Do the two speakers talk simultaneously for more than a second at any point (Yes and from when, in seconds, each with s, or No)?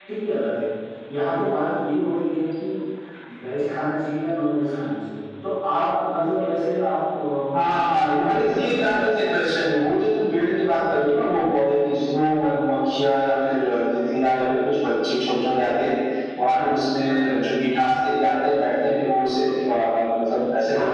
Yes, from 7.7 s